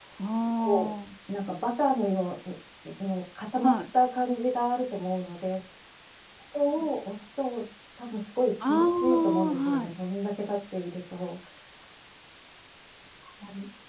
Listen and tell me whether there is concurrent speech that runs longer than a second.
Yes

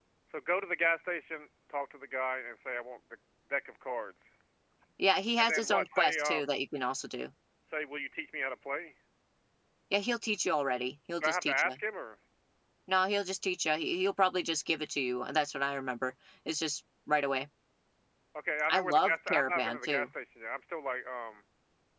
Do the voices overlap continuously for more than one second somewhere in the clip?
Yes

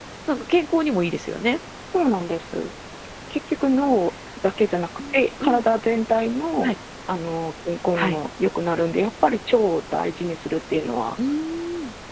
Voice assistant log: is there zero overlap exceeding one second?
Yes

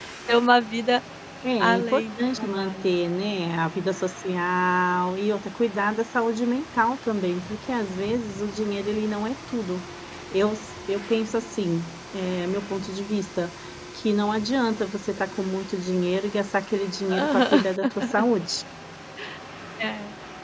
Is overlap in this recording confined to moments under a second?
No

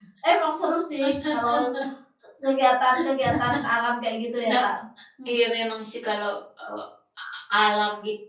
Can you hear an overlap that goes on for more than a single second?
No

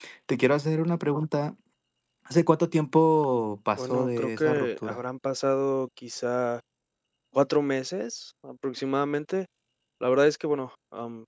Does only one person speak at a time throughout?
No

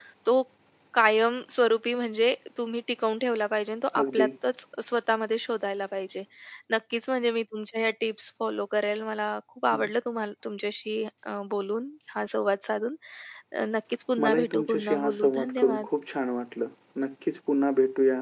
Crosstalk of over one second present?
Yes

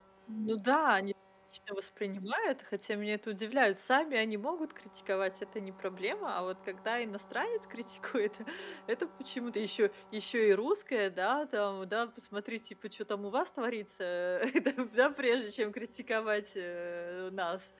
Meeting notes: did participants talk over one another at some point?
No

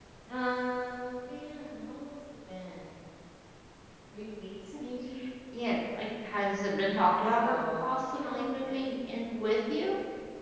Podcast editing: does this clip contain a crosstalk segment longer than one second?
Yes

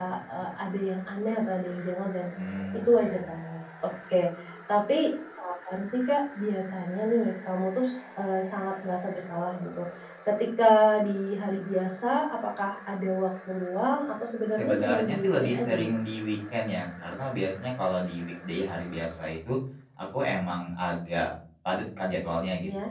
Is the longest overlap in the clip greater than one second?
Yes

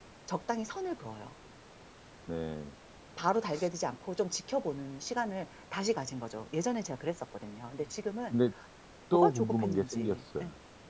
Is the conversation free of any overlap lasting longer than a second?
No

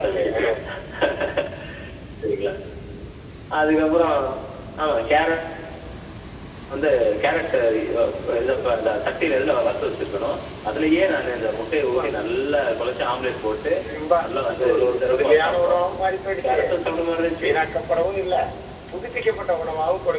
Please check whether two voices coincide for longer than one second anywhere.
Yes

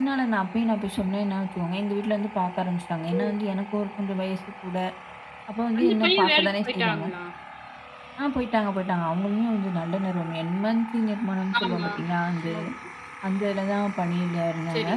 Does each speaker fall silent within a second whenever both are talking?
No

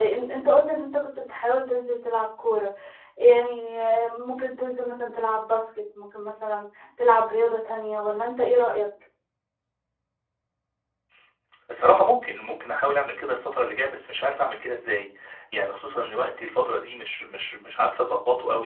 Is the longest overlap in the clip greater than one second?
No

